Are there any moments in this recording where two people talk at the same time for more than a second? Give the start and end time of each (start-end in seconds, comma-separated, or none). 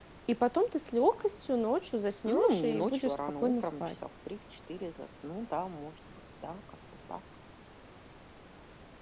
2.3-3.8